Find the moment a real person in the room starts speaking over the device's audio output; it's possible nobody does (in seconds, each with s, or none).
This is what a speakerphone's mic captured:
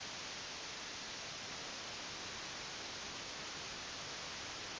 none